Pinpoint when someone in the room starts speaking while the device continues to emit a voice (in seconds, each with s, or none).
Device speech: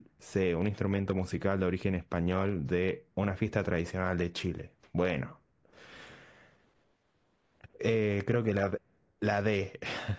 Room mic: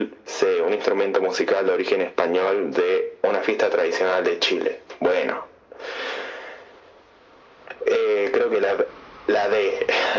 none